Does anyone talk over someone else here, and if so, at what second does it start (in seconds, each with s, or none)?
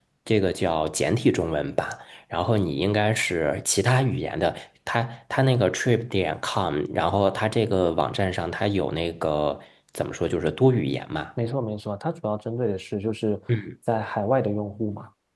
none